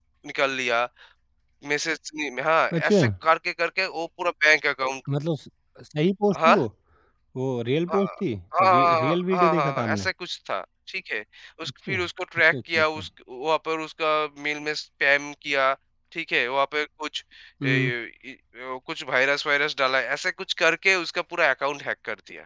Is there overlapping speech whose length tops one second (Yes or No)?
Yes